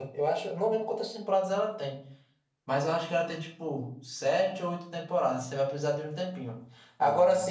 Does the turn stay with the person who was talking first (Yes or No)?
Yes